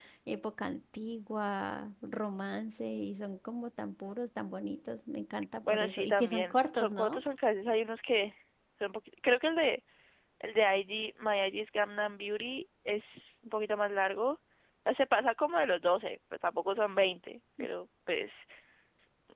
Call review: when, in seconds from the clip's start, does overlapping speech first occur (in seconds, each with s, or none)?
5.6 s